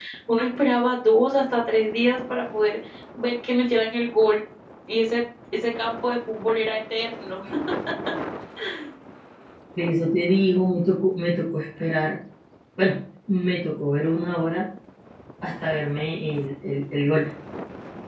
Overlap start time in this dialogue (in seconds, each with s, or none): none